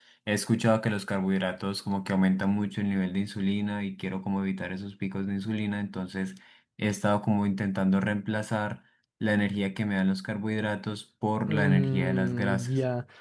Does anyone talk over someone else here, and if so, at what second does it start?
11 s

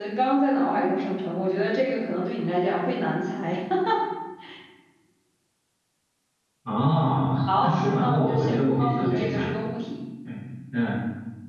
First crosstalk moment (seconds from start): 8 s

